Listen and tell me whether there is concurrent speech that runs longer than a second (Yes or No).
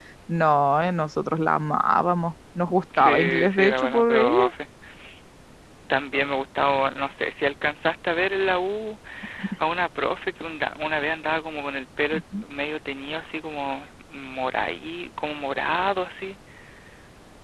Yes